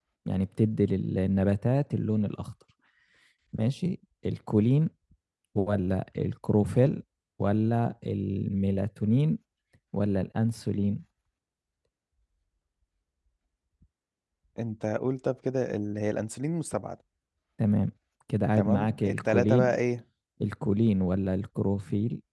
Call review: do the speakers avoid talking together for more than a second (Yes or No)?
No